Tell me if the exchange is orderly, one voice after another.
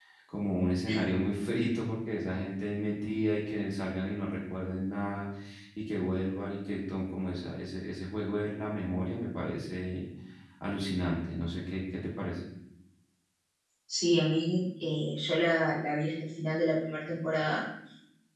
Yes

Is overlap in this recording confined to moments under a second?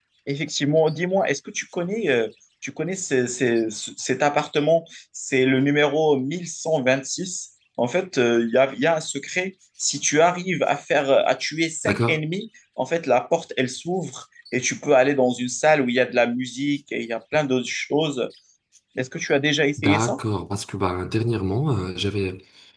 Yes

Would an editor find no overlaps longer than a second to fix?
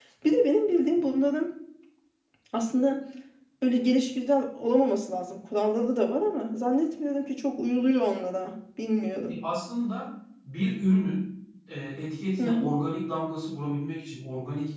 Yes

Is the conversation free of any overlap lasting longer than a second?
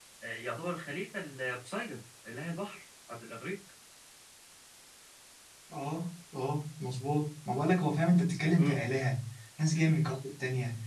Yes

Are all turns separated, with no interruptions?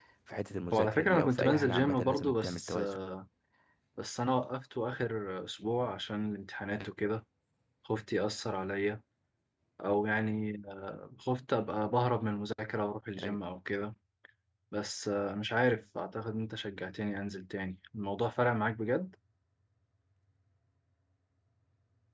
No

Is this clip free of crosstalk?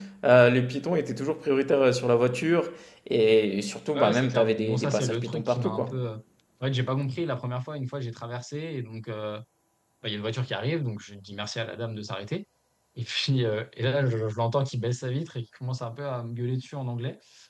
No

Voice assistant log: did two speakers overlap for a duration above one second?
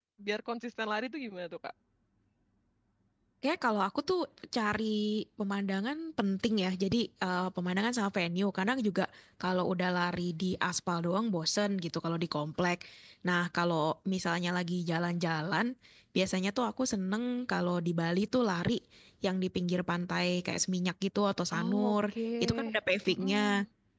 No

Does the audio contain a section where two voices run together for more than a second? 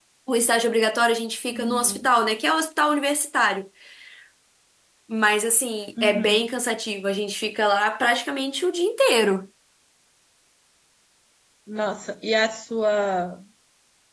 No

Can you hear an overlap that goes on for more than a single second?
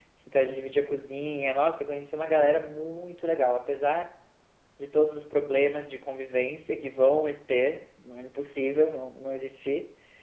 No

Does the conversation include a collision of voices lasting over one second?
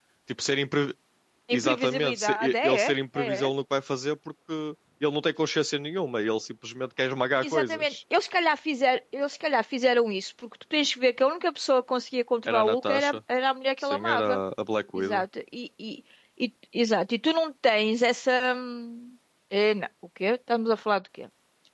Yes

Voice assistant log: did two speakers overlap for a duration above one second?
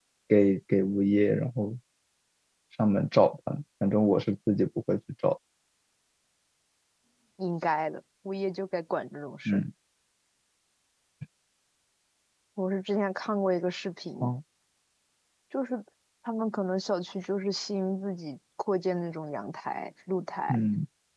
No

